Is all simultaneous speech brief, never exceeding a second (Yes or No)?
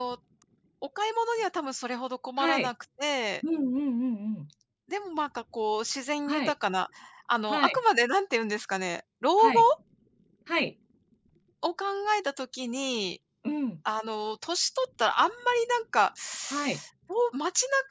Yes